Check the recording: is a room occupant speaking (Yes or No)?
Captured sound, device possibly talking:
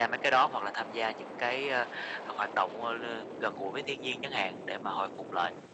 No